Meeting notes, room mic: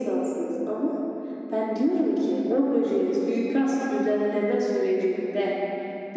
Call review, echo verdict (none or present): present